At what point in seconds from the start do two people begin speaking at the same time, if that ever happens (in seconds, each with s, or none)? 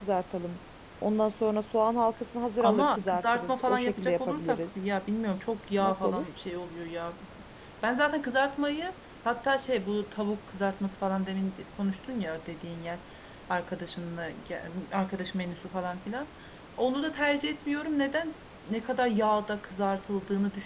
2.6 s